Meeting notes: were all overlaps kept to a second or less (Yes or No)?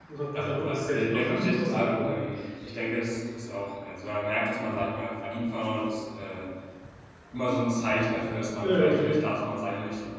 No